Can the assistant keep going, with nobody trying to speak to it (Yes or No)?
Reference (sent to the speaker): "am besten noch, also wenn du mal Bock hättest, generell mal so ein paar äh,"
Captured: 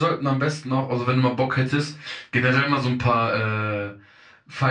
Yes